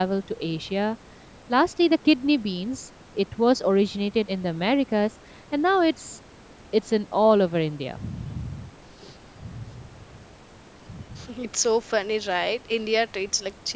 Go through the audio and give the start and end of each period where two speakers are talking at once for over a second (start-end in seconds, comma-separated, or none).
none